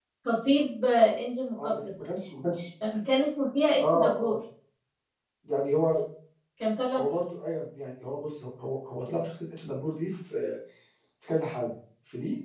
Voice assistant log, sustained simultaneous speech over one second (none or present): none